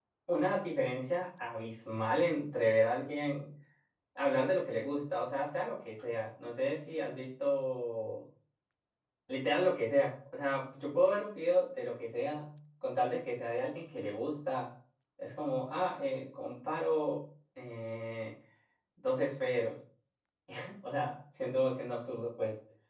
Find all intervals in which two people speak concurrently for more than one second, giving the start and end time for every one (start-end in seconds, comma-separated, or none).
none